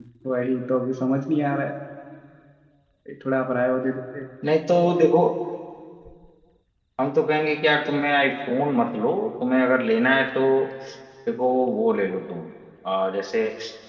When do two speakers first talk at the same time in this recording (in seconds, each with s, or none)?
none